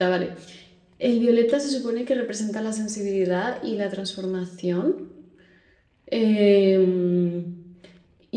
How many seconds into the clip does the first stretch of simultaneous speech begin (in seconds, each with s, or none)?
none